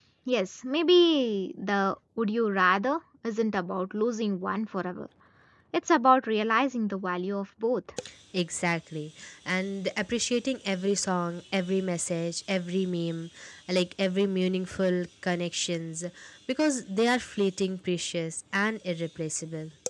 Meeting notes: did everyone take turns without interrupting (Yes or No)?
Yes